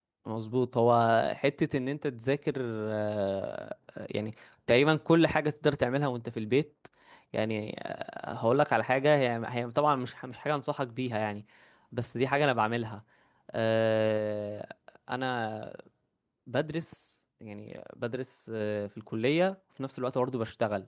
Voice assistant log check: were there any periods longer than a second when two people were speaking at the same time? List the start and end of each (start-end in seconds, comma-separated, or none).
none